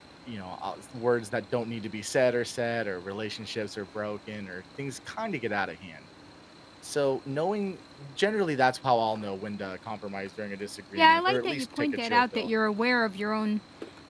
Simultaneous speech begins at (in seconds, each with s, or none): 11.0 s